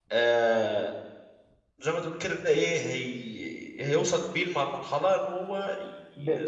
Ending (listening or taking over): taking over